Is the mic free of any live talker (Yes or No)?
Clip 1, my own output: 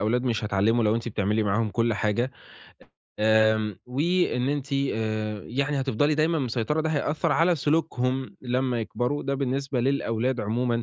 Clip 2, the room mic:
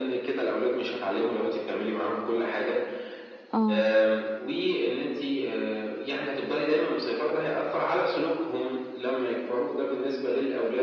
No